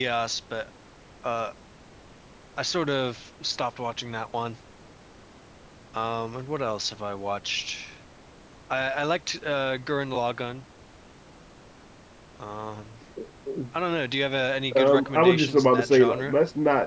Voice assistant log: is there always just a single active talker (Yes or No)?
No